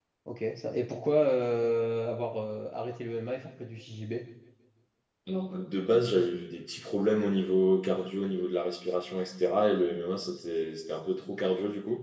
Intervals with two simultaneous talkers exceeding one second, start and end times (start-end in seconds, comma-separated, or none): none